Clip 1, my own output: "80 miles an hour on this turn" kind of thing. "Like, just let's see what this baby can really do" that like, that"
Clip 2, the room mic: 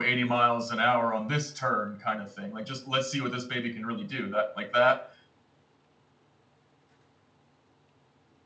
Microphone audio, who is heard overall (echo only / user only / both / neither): echo only